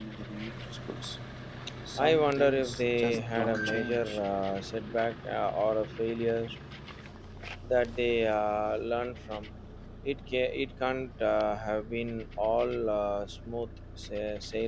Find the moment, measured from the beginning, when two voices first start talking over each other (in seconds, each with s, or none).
2.0 s